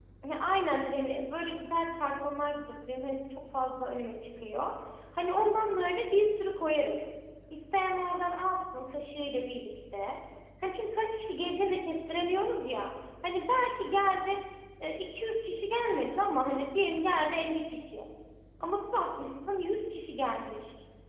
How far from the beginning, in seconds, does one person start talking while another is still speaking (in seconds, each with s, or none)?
none